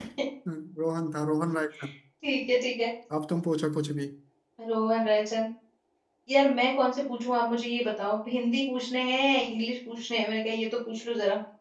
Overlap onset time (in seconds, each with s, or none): none